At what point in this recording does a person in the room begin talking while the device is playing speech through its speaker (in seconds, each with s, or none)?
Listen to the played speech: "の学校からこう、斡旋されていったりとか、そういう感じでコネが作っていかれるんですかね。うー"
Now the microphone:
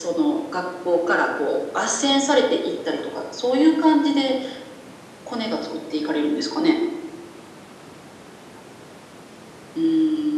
none